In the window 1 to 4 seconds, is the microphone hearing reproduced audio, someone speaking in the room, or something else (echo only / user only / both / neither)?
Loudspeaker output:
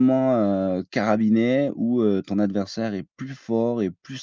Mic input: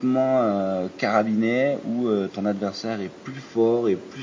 echo only